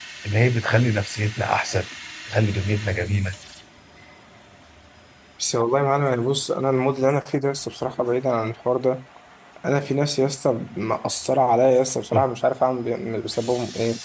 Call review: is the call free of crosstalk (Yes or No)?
Yes